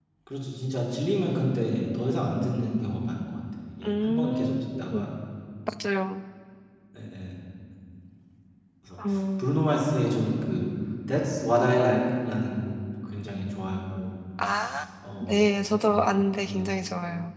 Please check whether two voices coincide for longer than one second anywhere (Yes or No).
Yes